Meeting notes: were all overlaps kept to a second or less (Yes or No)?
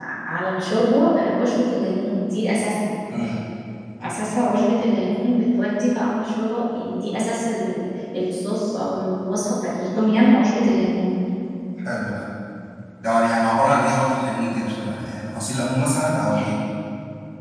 Yes